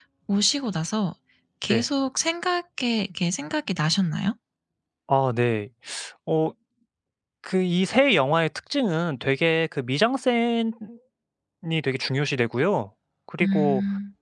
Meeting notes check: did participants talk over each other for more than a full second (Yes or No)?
No